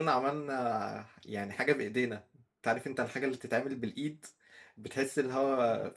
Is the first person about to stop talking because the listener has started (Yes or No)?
Yes